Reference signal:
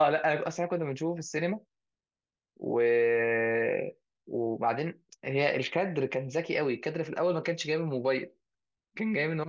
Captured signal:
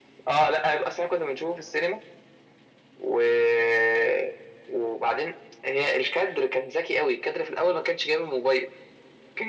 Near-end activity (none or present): none